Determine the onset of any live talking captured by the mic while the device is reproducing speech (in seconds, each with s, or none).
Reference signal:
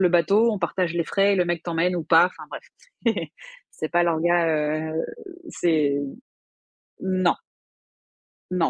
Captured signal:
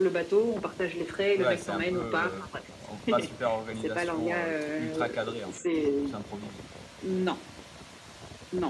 1.4 s